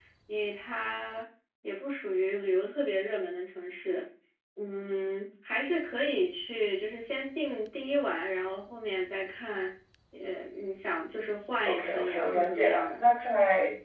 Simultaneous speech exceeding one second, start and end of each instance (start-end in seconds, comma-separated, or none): 11.6-13.0